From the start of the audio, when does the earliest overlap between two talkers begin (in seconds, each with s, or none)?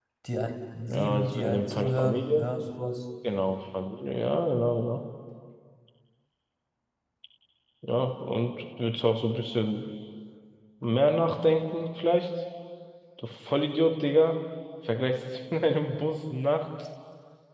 0.9 s